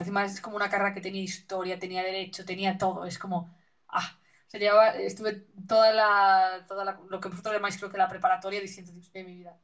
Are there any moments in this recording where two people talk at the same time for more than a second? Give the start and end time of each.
none

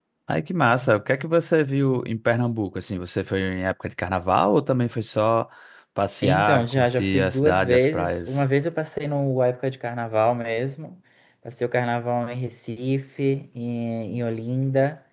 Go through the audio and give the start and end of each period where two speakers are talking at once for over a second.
6.2-8.5

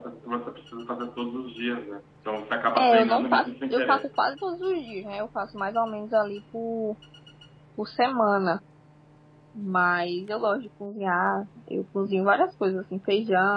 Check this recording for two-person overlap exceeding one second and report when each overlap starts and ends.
2.8-4.1

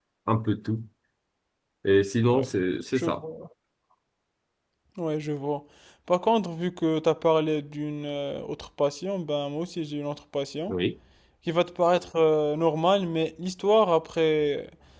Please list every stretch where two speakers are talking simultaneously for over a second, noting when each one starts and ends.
none

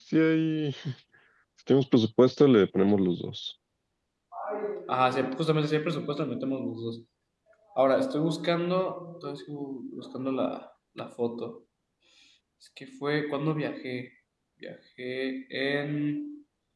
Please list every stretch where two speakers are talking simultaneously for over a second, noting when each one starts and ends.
none

